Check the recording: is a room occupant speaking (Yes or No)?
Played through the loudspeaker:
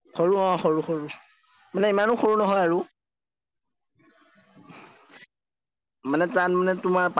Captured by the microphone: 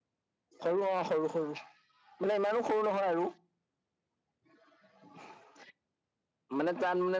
No